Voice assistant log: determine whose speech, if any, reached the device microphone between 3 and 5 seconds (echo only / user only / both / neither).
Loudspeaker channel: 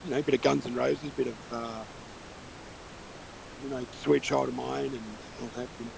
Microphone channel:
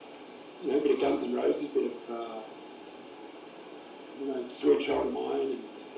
echo only